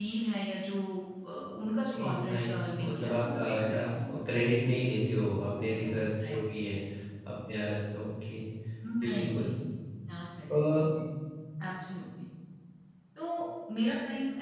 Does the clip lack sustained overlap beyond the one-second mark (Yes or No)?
No